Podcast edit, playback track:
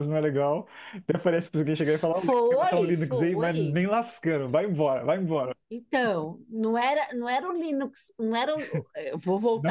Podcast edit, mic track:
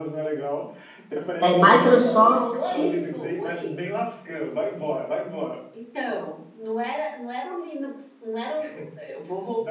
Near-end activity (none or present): present